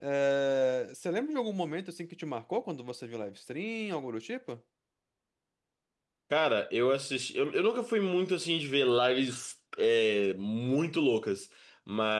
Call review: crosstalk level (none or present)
none